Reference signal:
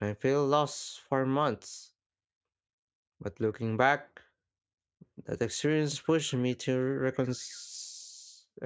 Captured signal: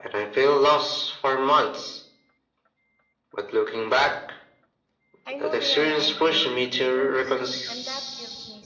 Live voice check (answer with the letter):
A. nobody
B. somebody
B